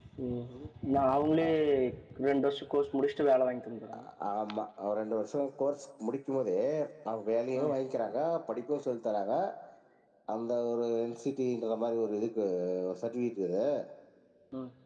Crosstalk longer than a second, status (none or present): none